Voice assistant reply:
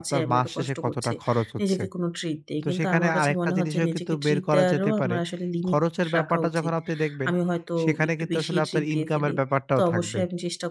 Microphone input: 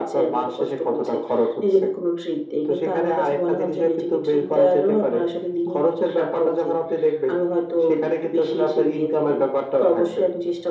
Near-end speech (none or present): none